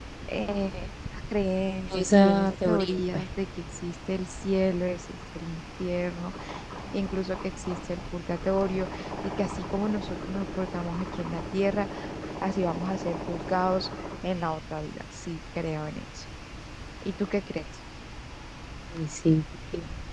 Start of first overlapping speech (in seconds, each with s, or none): 1.9 s